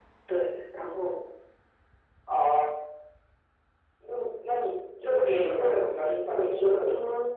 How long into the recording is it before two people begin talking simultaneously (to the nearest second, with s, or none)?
5 s